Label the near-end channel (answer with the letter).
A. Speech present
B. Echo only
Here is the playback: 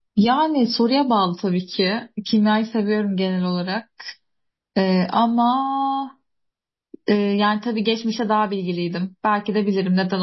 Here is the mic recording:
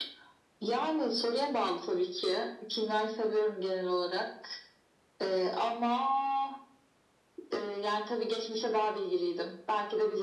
B